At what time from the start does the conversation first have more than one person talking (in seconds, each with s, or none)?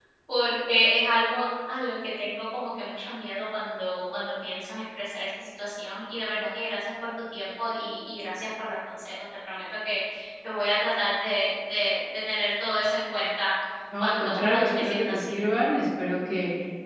14.0 s